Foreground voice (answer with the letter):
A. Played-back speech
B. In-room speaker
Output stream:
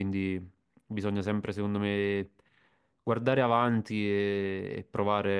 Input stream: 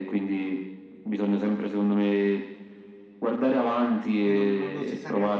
A